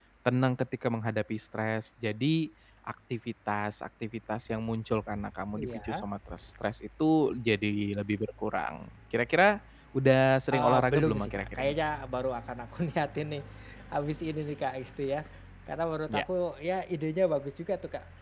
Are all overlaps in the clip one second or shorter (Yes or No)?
No